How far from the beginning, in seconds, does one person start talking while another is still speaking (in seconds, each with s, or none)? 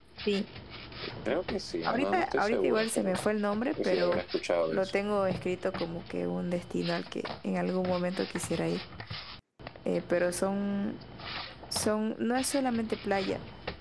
1.8 s